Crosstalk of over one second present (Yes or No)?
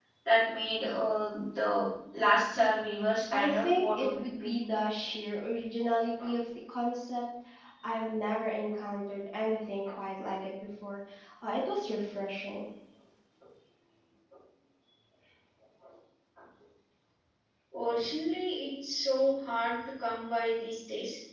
Yes